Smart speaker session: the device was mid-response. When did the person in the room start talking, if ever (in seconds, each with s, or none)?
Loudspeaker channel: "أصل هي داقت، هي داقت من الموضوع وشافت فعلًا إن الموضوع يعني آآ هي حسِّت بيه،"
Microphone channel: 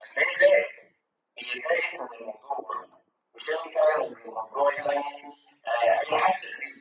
none